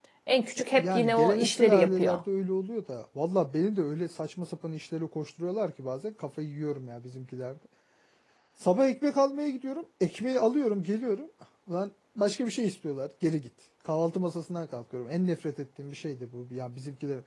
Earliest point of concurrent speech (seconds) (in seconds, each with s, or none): 0.8 s